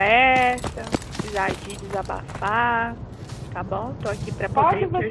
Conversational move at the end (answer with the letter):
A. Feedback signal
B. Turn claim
B